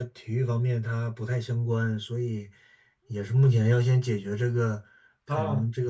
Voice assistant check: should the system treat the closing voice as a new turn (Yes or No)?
No